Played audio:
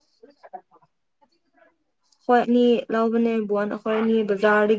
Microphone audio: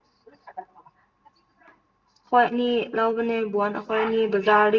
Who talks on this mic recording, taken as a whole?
echo only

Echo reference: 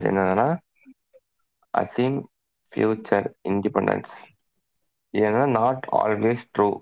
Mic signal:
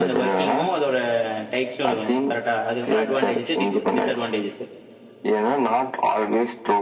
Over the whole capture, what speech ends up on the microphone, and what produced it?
both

